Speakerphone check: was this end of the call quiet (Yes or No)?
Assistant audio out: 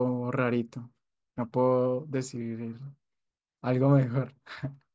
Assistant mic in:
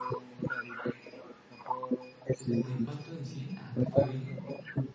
No